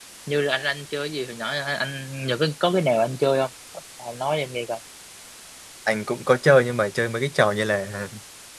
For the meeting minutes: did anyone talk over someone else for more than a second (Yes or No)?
No